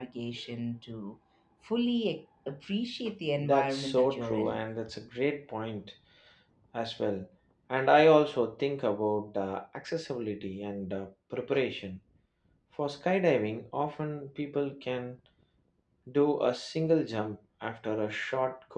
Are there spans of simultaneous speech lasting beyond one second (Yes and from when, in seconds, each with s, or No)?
Yes, from 3.4 s